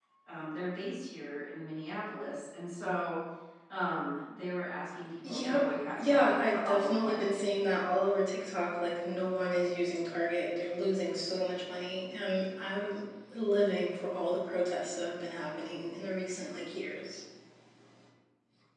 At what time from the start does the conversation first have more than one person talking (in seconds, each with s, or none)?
5.2 s